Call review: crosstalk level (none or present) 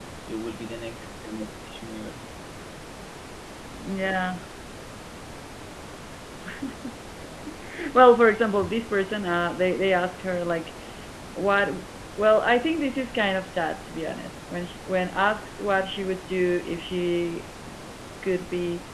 none